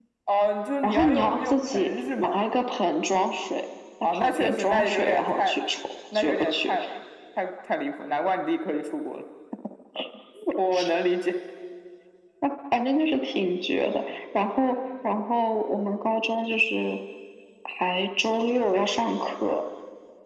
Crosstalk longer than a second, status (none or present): present